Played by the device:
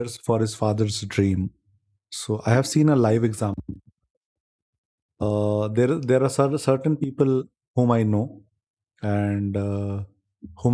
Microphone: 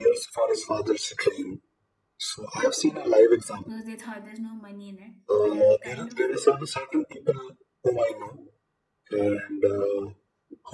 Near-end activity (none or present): present